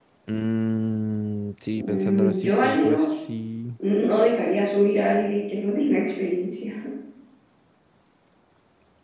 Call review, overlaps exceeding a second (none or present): present